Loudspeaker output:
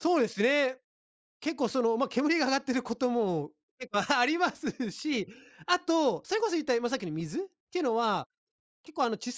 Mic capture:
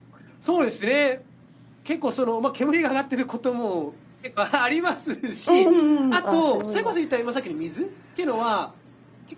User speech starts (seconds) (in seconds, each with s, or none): 5.5 s